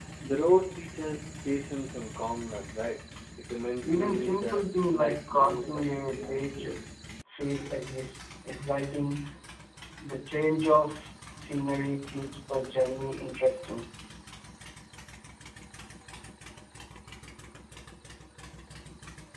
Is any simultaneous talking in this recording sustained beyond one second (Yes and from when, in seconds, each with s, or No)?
Yes, from 3.8 s